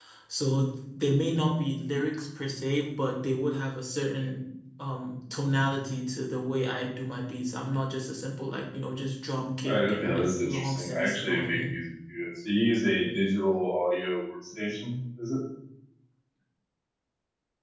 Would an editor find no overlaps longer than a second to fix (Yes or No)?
No